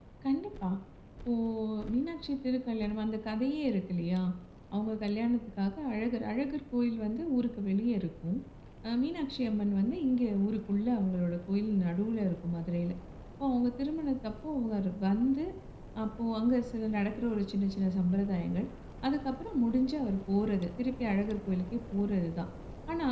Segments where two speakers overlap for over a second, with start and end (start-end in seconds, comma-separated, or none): none